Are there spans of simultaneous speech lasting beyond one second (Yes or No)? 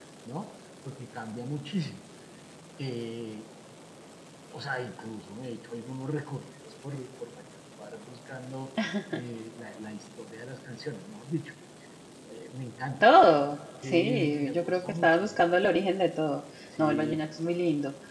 Yes